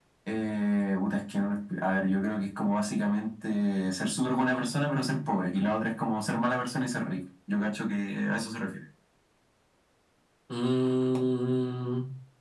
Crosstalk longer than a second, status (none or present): none